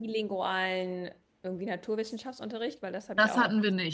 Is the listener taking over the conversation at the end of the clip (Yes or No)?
Yes